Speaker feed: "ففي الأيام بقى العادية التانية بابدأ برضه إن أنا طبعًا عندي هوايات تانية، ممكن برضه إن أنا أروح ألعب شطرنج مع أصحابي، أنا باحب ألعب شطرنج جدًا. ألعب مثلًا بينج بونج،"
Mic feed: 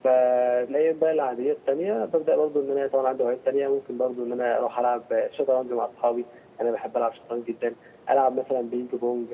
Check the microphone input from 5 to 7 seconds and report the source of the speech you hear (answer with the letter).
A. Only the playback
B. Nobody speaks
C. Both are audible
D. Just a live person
A